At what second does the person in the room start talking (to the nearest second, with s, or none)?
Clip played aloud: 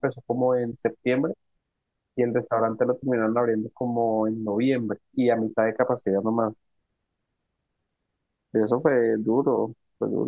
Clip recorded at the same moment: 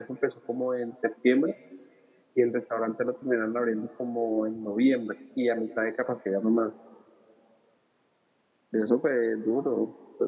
none